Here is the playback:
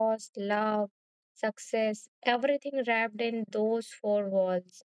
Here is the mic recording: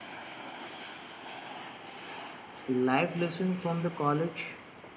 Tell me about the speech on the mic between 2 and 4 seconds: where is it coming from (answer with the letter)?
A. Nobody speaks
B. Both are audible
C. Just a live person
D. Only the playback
C